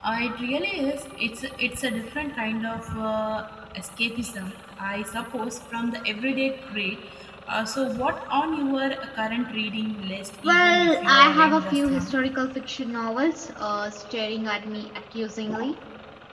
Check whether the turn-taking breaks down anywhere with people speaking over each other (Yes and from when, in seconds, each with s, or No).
Yes, from 10.4 s